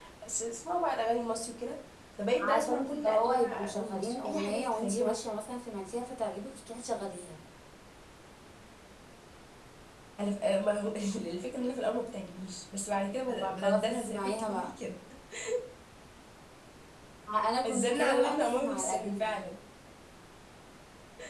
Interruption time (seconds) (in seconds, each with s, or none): 2.4 s